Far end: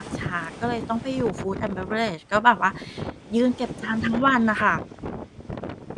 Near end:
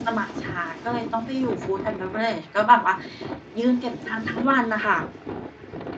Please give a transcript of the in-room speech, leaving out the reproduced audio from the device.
none

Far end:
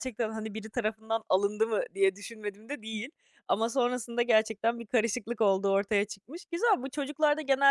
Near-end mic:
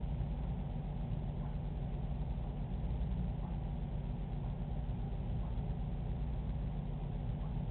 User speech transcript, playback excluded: none

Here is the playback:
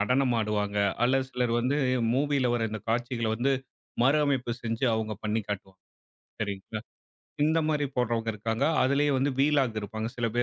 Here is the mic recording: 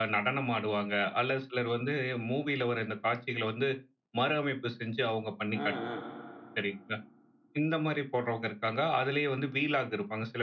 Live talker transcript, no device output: அ. அ.

